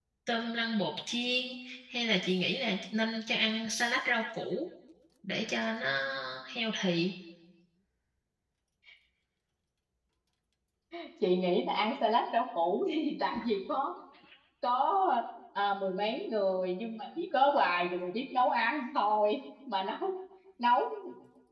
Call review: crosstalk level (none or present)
none